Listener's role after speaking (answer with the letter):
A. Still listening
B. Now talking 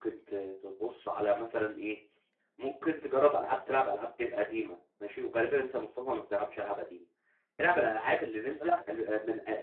A